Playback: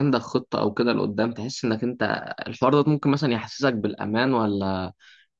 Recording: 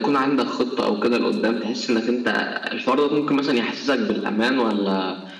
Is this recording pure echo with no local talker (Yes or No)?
Yes